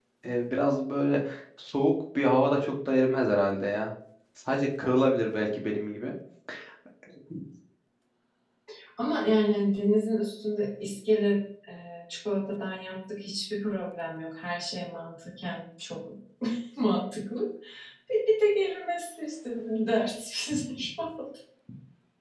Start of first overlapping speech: none

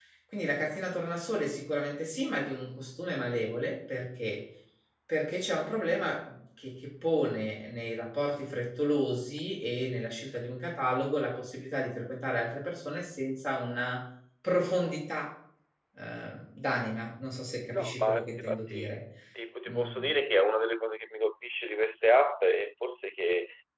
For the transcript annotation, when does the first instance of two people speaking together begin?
17.7 s

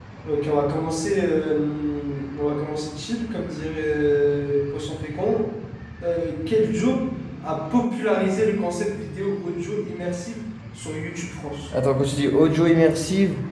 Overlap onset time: none

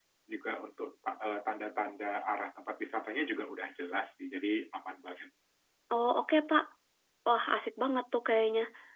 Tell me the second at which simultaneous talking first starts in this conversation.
none

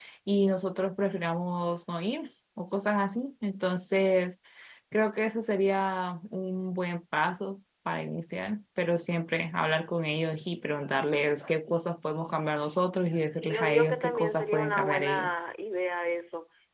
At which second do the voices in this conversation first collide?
13.3 s

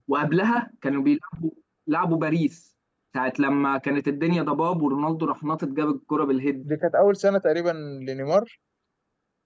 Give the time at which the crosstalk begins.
none

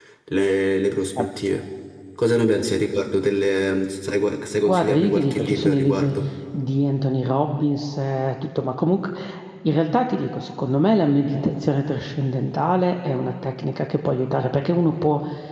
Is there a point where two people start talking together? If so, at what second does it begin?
4.7 s

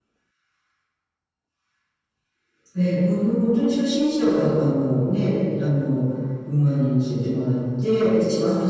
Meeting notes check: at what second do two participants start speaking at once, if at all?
none

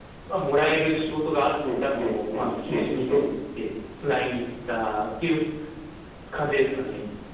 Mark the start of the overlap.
1.6 s

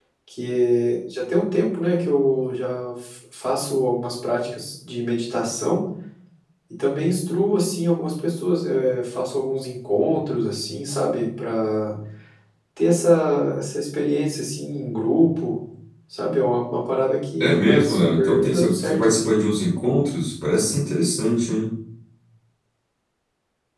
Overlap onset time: 17.4 s

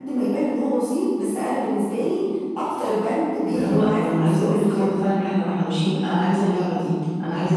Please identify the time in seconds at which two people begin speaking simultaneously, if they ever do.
3.5 s

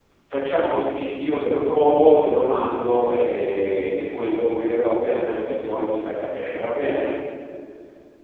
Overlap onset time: none

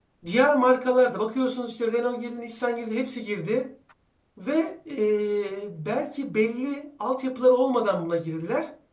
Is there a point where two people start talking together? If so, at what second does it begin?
none

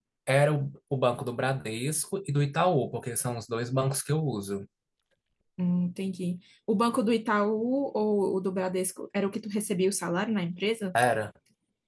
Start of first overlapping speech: none

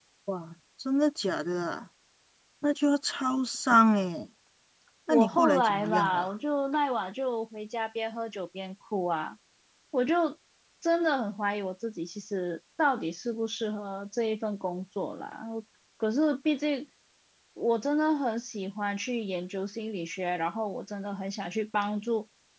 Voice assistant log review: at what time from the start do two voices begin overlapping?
5.1 s

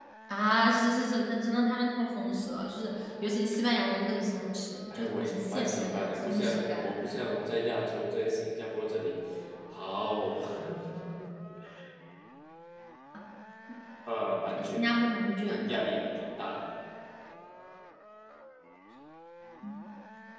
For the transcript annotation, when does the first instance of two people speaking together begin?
4.9 s

